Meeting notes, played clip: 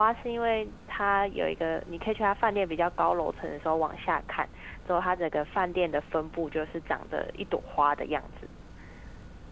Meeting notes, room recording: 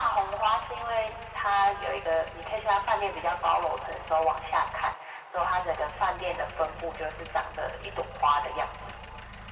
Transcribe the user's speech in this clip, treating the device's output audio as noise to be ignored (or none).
none